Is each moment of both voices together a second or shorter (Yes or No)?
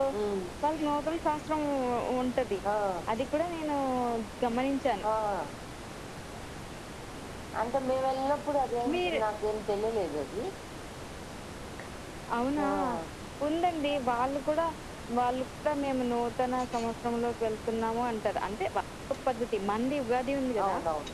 Yes